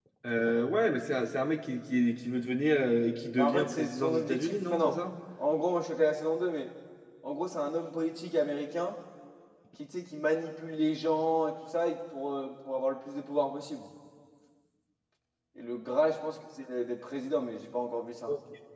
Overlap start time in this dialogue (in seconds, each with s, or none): 3.4 s